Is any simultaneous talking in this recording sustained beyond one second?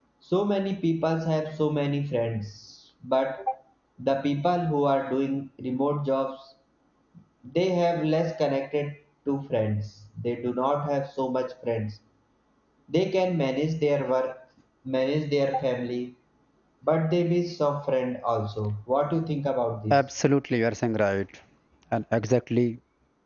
No

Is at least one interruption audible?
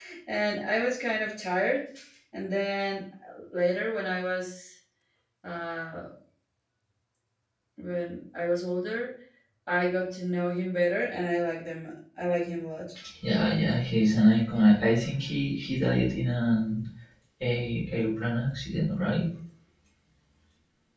No

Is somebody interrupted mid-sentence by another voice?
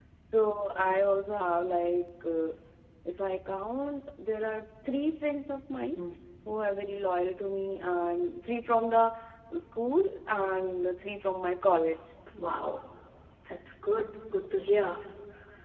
No

